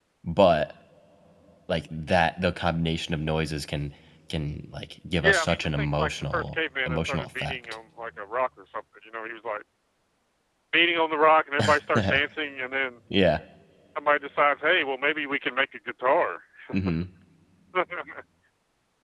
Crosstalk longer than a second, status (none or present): present